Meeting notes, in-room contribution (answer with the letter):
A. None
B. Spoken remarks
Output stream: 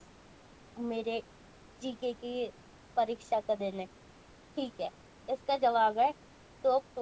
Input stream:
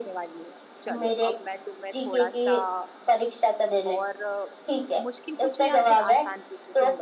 B